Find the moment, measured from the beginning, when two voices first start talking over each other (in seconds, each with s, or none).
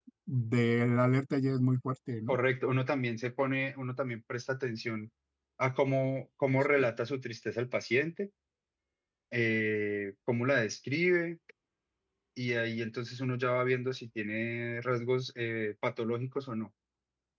none